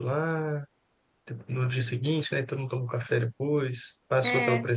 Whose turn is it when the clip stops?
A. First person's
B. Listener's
A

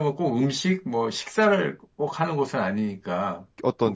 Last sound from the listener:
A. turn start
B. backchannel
A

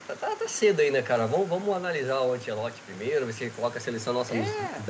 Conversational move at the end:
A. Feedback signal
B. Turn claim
A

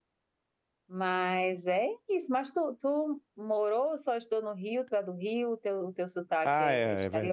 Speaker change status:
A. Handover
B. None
A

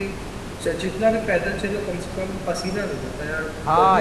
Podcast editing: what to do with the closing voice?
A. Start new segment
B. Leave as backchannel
A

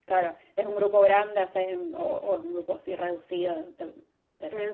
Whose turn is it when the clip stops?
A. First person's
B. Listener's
B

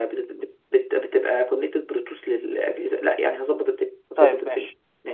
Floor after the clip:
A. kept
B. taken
B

